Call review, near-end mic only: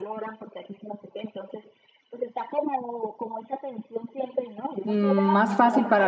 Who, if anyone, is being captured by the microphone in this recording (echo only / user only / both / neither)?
both